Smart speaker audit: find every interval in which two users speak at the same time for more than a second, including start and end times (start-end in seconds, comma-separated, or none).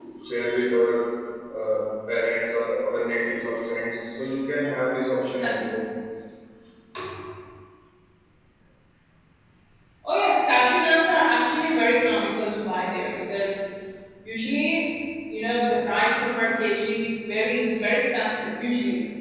none